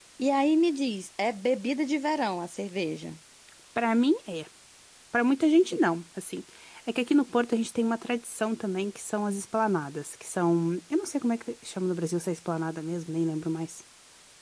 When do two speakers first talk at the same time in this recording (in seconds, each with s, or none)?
none